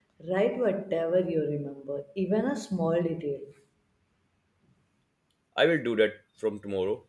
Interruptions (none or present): none